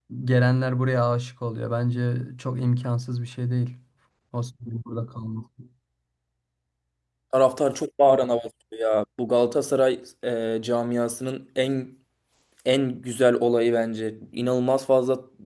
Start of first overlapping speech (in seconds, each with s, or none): none